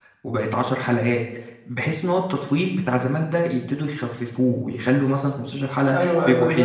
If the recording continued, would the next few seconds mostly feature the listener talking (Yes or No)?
Yes